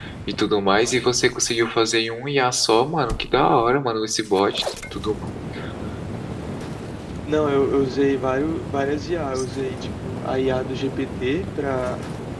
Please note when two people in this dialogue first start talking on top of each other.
none

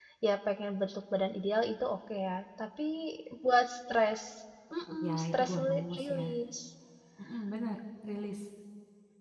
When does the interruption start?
4.9 s

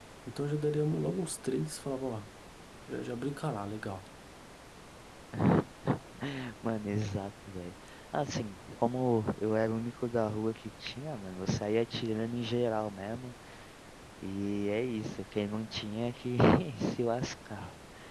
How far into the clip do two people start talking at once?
none

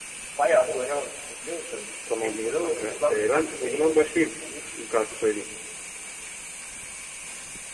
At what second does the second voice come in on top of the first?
2.1 s

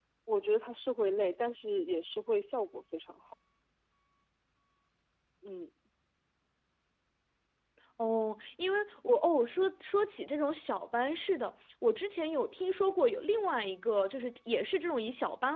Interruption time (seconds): none

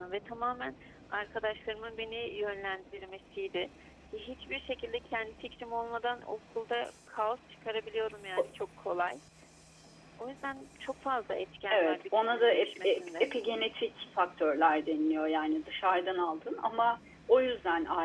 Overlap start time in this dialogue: 11.7 s

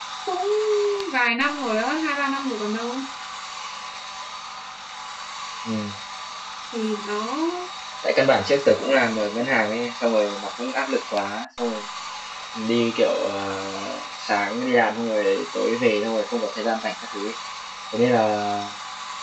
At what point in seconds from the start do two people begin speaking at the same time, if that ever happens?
none

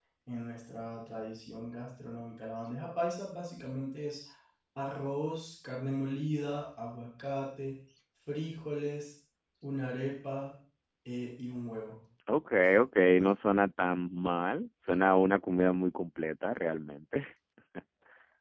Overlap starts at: none

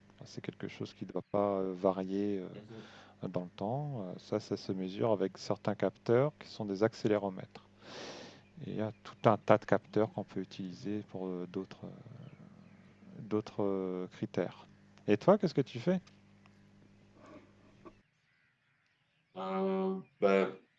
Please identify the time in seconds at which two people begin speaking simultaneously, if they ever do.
none

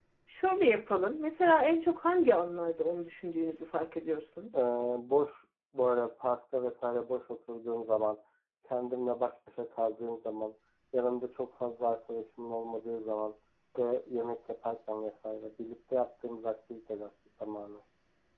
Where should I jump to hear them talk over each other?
none

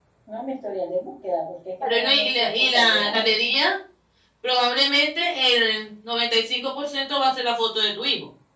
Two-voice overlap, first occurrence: 1.8 s

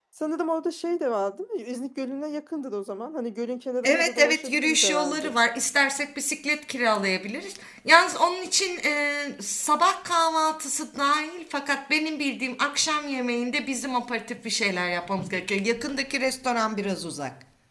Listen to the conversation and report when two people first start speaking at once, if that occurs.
3.8 s

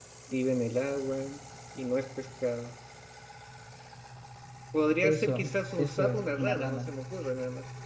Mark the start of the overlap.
5.0 s

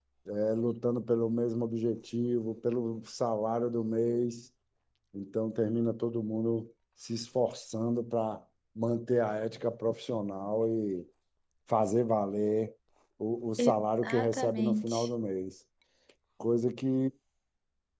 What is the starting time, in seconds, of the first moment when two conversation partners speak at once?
13.6 s

